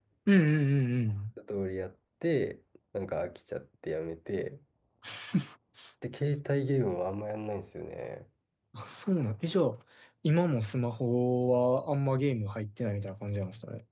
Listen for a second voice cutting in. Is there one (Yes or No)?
No